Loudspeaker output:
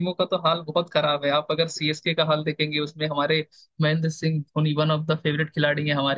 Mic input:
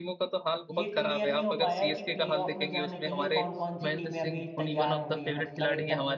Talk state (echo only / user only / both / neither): both